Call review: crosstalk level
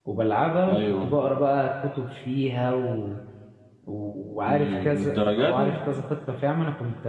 present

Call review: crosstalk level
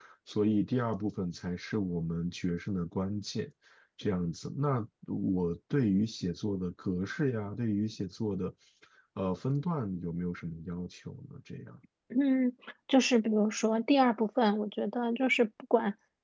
none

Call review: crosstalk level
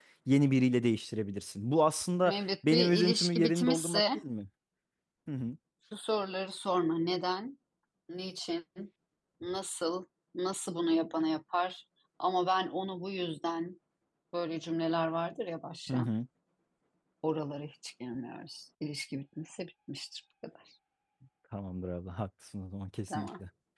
present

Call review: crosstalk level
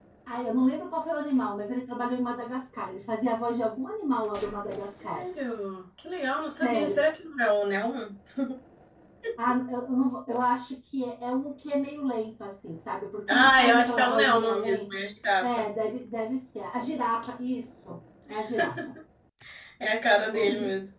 present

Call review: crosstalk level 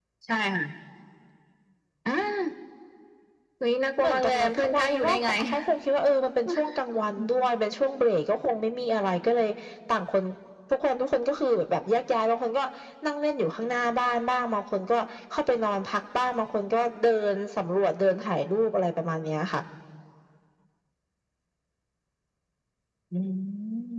present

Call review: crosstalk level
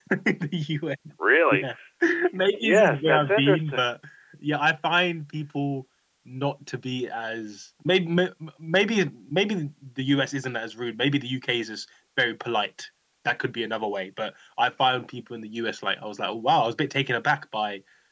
present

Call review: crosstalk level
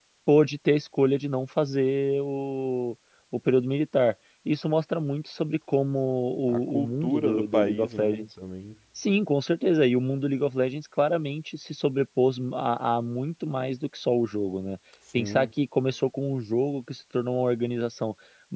present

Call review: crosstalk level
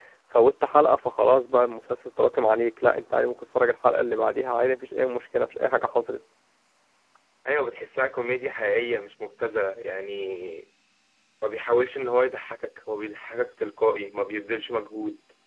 none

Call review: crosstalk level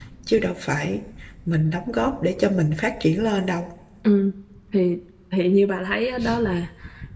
none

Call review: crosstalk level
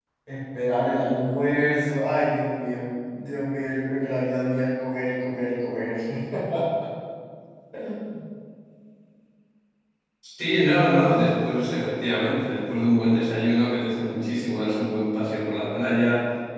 none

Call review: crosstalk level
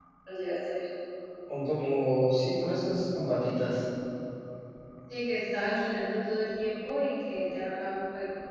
none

